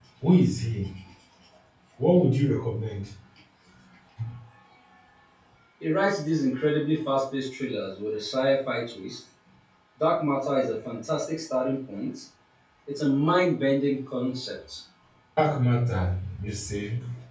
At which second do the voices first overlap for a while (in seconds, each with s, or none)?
none